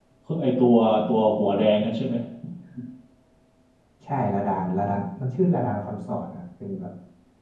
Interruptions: none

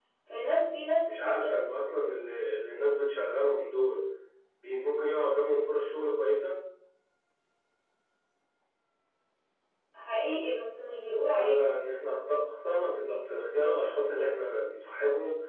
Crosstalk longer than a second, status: none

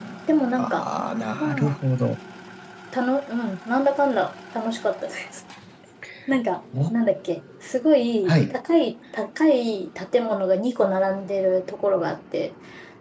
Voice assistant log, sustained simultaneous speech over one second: none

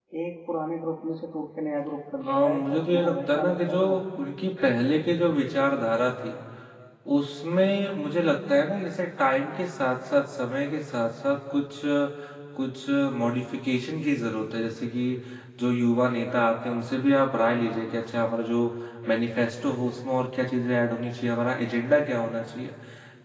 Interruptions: present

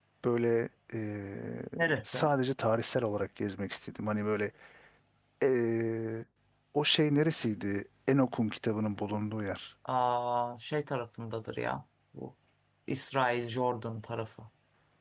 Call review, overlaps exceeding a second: none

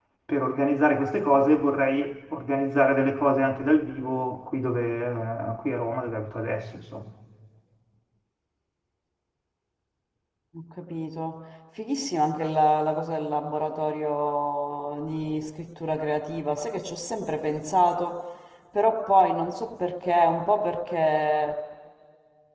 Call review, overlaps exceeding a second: none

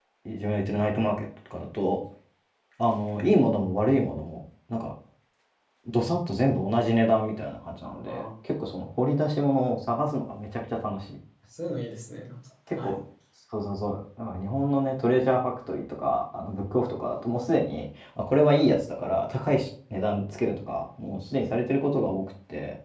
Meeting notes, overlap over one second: none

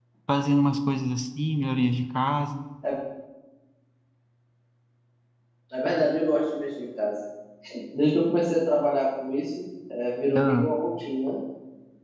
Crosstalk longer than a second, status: none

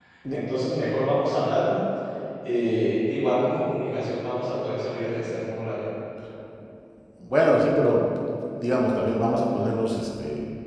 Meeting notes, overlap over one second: none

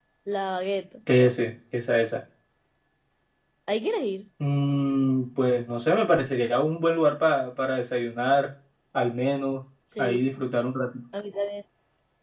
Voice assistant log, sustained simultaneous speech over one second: none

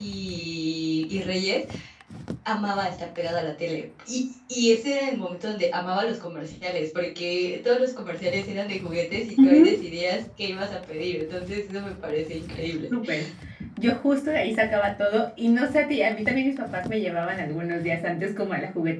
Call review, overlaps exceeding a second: none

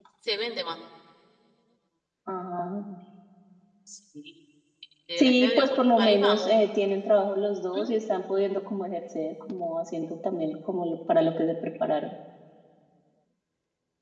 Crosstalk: present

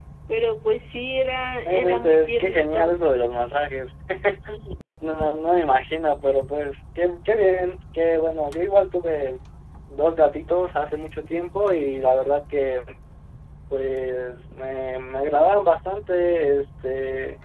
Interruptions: present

